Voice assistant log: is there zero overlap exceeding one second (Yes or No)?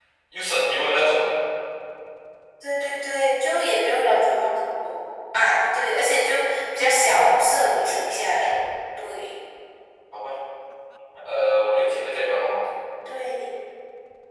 No